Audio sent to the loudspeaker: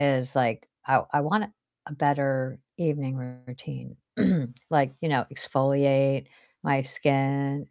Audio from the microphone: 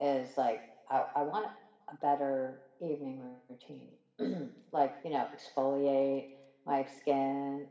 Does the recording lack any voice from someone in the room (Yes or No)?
Yes